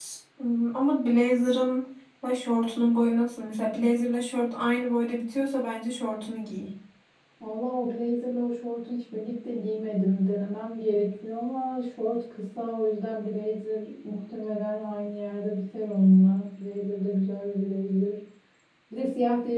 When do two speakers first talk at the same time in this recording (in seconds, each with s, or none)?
none